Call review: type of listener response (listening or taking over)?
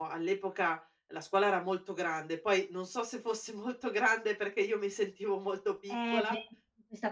taking over